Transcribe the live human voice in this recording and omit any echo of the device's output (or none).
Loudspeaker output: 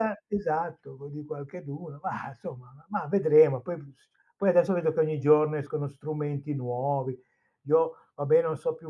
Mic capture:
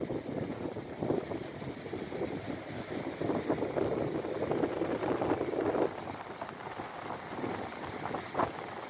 none